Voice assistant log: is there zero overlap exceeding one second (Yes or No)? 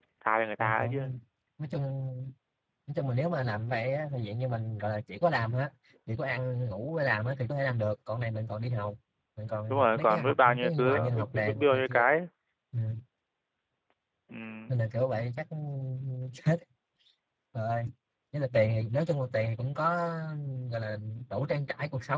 No